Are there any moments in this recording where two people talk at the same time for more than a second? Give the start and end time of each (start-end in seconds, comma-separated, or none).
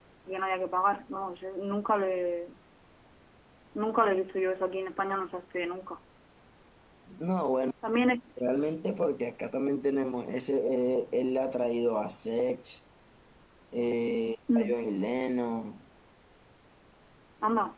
none